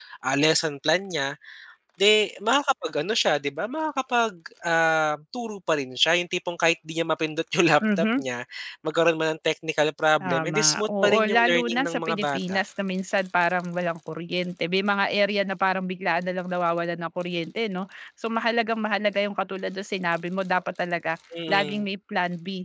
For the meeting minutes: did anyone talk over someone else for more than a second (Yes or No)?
Yes